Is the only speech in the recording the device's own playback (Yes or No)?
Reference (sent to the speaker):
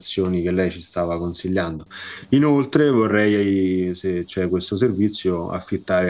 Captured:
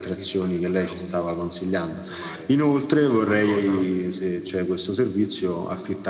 No